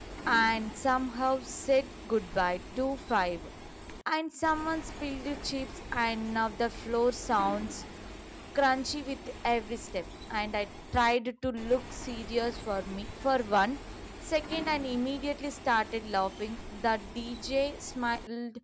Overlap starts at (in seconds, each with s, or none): none